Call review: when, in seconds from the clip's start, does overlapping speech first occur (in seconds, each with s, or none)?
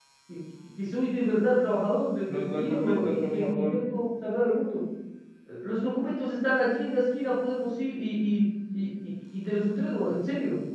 2.3 s